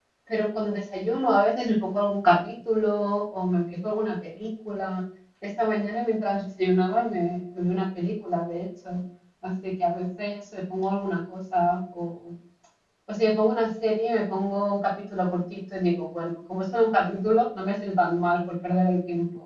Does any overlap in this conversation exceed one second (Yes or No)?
No